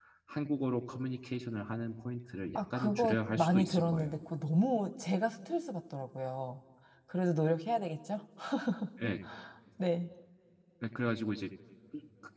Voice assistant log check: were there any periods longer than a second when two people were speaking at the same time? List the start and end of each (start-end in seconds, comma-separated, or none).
2.5-4.2